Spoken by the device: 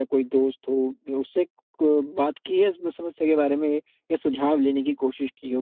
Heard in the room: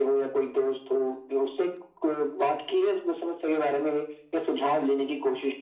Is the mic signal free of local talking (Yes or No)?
Yes